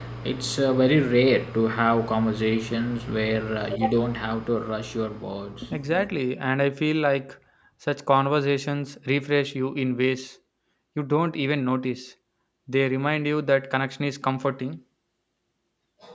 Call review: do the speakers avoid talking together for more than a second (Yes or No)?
Yes